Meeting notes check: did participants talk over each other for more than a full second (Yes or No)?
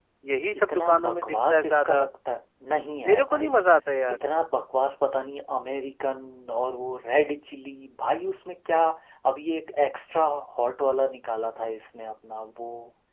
Yes